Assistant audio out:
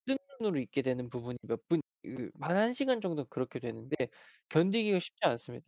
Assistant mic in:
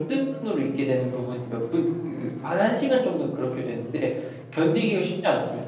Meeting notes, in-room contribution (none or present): none